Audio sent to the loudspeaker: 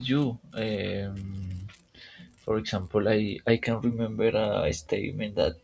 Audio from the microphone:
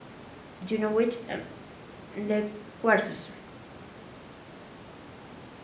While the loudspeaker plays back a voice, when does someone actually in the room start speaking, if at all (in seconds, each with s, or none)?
0.7 s